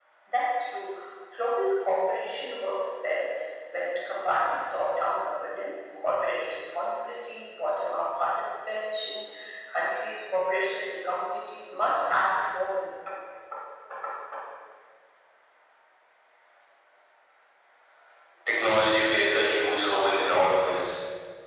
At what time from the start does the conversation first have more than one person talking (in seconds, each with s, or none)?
none